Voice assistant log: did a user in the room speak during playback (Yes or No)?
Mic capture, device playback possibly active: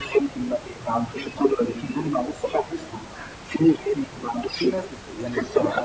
Yes